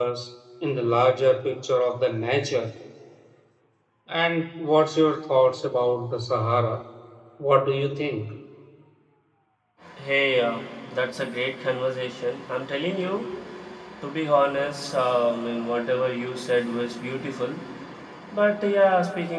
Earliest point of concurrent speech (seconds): none

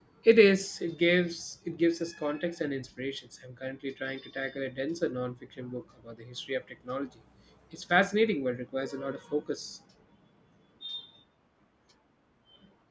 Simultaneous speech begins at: none

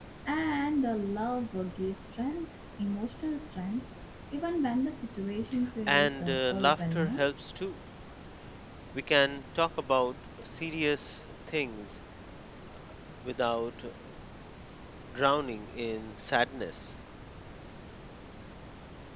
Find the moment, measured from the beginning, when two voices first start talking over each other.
5.9 s

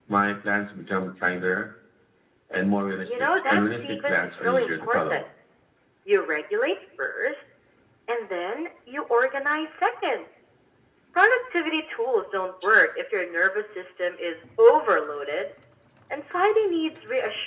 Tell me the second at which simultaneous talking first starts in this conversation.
3.0 s

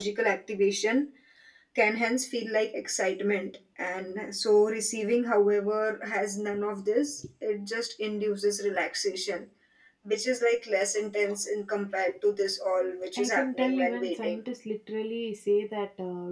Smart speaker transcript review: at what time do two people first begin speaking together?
13.2 s

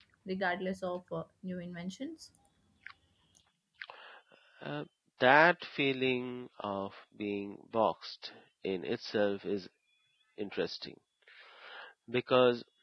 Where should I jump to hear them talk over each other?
none

